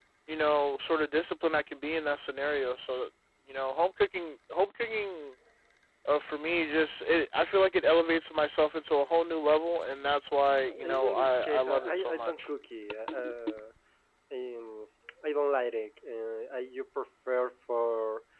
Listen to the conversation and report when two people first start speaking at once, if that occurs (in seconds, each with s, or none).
10.6 s